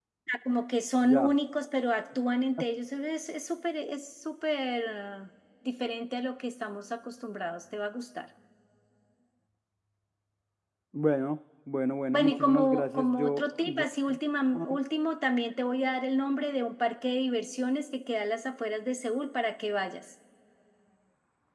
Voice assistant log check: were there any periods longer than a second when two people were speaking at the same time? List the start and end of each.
12.1-13.8

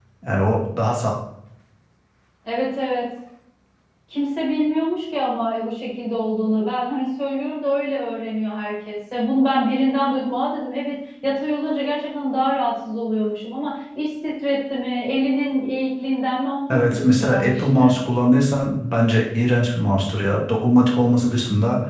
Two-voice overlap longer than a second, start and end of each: 16.7-18.0

